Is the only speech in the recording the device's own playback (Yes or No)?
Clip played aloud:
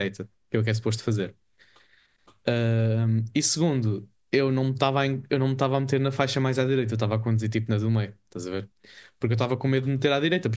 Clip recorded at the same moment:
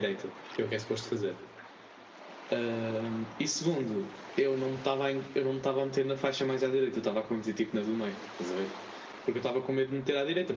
Yes